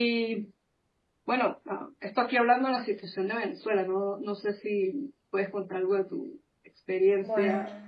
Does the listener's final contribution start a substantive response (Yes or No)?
Yes